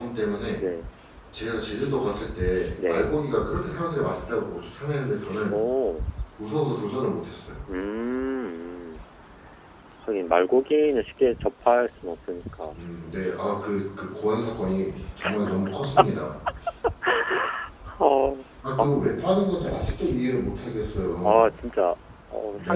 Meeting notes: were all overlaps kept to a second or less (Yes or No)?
Yes